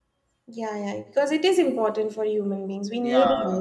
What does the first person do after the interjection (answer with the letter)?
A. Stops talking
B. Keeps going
A